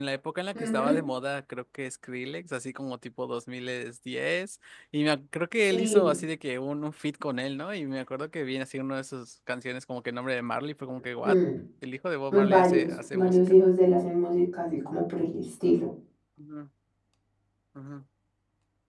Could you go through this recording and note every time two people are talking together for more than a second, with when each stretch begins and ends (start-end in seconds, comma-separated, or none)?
12.3-13.6